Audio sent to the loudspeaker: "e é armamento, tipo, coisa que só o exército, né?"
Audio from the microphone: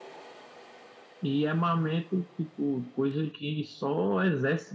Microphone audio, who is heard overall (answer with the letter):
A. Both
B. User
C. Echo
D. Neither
C